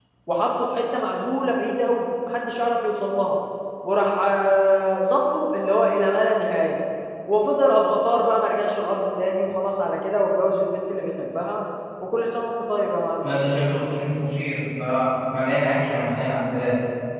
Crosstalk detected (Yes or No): No